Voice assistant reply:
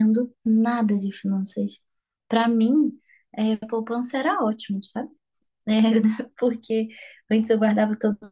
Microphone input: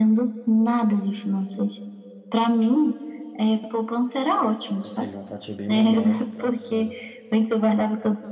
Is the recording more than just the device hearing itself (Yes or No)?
Yes